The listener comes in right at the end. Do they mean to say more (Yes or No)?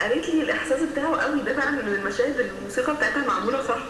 Yes